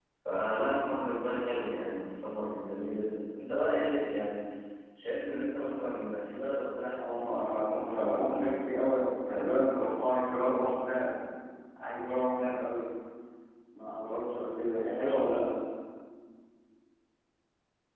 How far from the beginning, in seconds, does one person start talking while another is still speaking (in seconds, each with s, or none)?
6.9 s